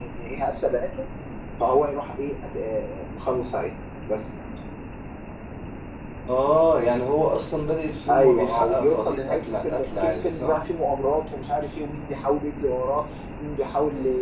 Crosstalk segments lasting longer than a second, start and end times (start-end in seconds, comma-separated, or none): 8.1-10.5